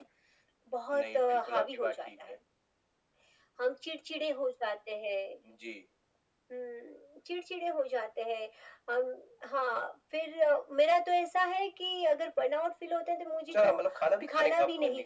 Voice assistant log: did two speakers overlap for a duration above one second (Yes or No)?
Yes